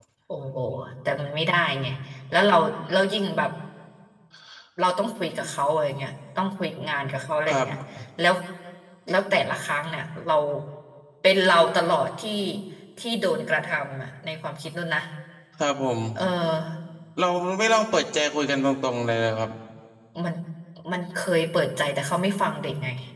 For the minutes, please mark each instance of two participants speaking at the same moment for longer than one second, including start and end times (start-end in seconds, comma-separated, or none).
none